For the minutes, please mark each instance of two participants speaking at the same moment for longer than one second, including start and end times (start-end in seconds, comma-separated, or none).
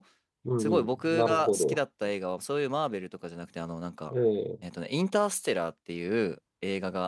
0.6-1.8